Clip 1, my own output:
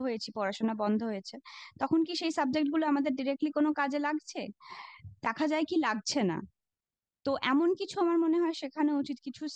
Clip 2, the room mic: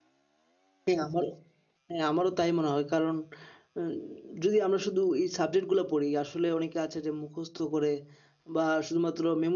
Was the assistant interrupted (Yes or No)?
Yes